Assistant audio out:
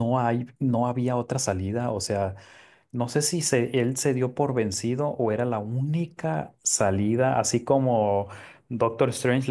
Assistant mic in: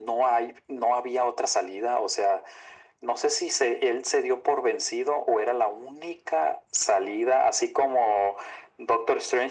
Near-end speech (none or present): none